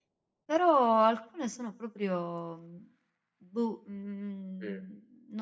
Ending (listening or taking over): listening